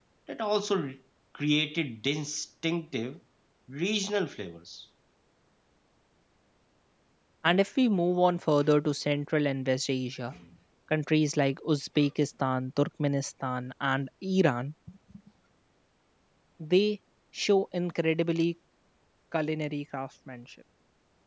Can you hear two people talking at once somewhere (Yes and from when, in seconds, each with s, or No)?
No